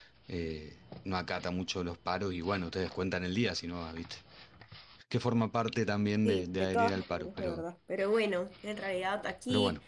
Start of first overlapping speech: 6 s

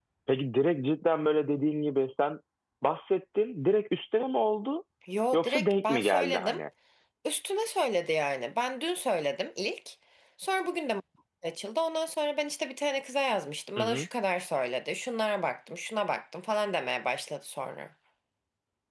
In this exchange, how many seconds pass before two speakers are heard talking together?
5 s

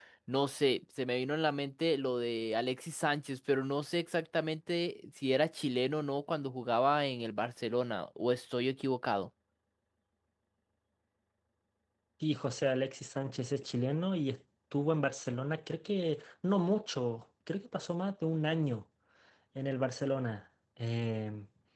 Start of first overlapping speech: none

